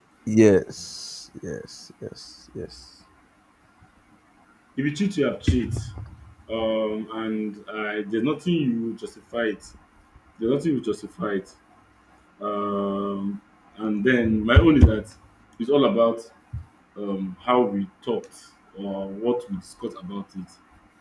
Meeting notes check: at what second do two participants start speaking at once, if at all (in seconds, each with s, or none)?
none